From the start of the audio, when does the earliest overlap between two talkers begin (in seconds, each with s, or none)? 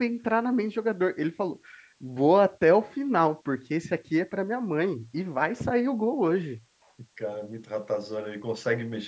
none